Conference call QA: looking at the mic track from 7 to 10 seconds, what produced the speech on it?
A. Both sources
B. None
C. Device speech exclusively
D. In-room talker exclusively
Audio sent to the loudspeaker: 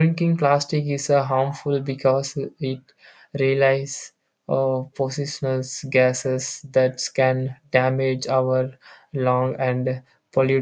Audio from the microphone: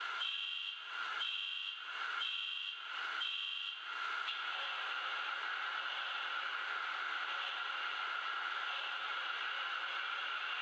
B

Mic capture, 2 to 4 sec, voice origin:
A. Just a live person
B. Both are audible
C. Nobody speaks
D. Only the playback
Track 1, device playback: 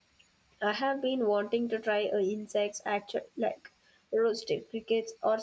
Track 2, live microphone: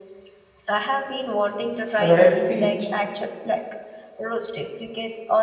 B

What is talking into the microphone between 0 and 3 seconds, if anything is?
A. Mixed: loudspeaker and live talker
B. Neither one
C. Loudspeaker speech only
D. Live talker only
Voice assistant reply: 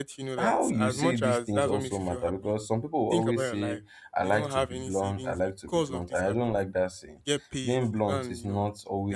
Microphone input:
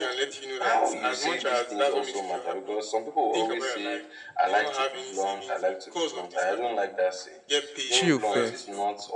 C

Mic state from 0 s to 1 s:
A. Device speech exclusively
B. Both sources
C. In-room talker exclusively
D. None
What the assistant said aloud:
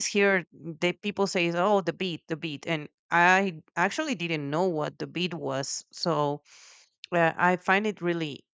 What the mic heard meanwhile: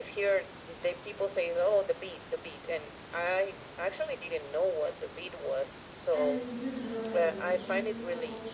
A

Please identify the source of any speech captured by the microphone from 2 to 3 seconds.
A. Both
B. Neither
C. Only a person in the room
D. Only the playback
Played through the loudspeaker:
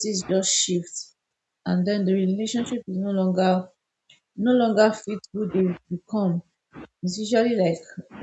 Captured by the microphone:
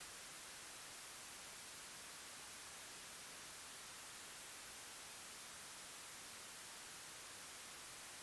B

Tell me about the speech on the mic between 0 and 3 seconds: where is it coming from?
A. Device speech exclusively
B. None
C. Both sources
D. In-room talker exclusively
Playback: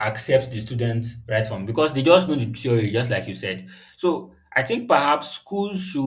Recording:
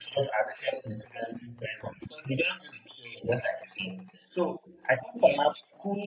A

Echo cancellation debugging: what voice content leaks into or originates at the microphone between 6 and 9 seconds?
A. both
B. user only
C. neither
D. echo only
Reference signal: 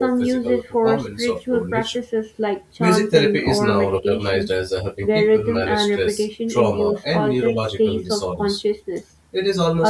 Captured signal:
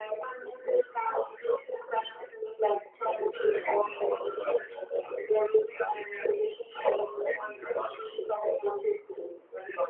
D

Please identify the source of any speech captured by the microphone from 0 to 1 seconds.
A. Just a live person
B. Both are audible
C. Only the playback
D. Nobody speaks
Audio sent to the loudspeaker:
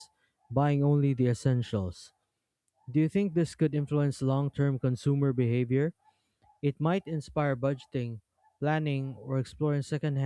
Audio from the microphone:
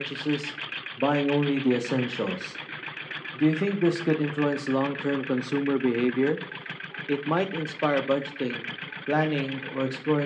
C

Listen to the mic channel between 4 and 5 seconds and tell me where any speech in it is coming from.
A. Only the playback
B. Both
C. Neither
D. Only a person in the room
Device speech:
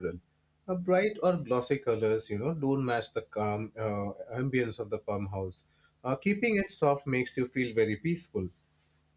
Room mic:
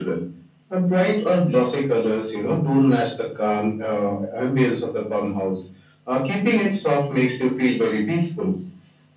A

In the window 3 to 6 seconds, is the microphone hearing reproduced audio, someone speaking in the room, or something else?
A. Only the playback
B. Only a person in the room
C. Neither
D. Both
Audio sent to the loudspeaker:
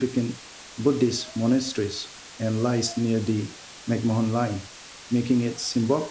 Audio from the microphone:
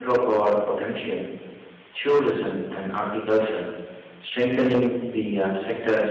B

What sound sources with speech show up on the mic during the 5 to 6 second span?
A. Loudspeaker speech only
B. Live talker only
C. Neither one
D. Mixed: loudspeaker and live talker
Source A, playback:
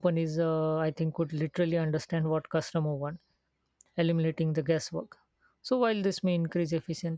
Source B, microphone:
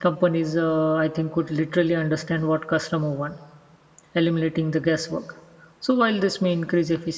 A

